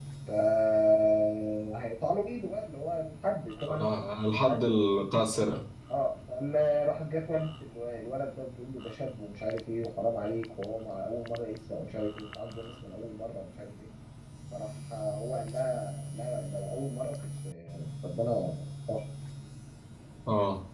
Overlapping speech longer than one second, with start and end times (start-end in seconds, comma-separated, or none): none